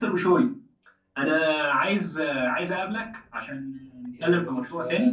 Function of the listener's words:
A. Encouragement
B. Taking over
B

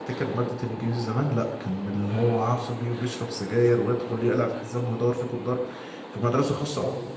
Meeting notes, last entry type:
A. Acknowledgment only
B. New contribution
A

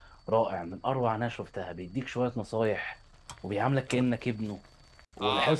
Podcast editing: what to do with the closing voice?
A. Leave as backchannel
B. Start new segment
B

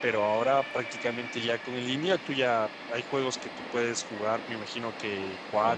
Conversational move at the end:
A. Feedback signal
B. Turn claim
A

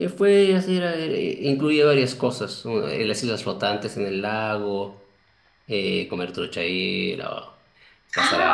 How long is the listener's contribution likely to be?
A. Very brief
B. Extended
B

